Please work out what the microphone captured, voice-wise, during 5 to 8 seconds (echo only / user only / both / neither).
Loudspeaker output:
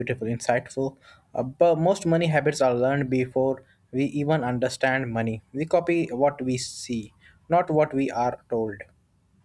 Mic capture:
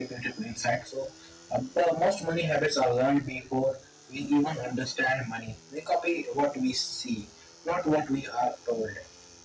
echo only